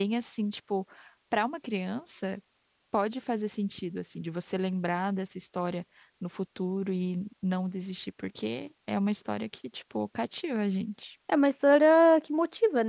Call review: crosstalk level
none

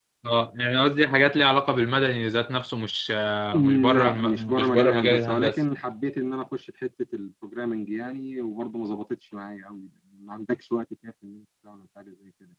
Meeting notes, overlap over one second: present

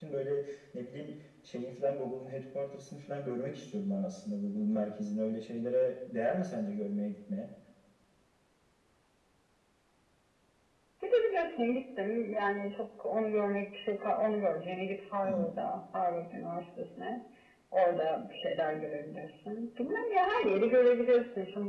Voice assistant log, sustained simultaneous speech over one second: none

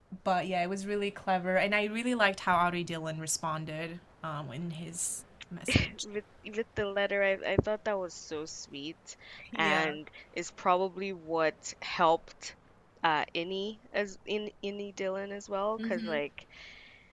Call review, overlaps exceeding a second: none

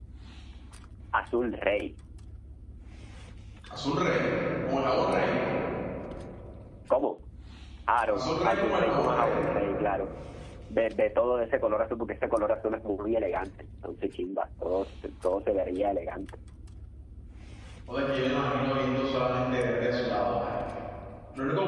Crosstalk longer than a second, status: present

